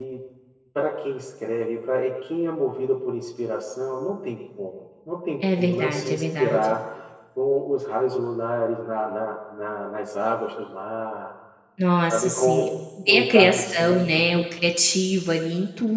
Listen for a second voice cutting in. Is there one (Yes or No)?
Yes